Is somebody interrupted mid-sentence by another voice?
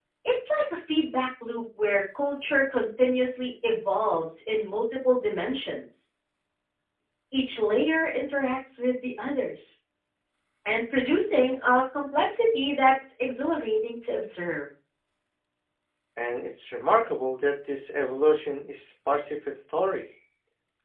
No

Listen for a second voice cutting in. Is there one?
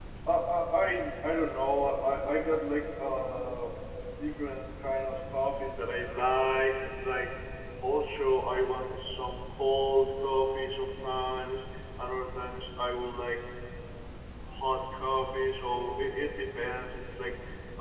No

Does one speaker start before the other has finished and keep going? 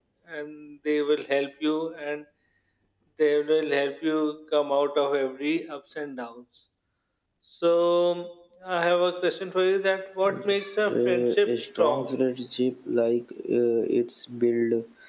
Yes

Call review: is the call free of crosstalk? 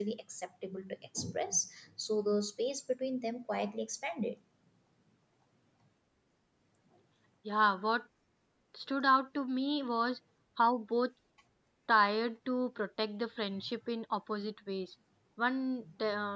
Yes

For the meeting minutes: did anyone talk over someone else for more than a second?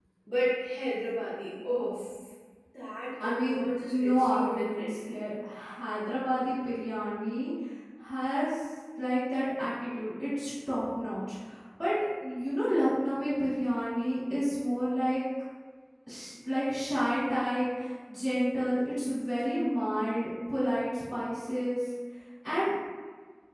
Yes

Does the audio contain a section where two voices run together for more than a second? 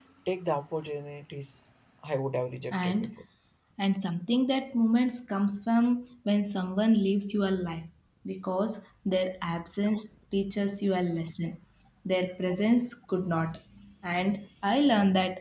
No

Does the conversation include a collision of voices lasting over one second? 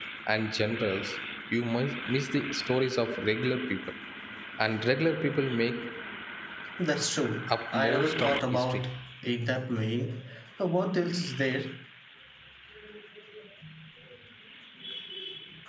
Yes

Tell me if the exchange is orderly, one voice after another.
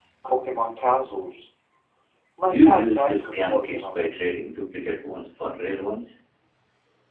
No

